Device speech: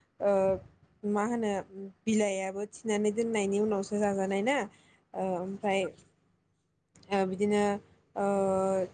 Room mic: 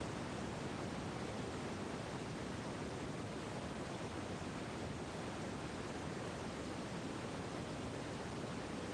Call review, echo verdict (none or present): none